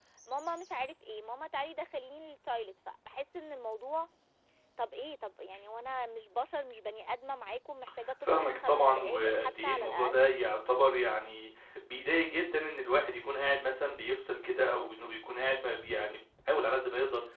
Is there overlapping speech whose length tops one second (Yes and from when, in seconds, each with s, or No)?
Yes, from 8.2 s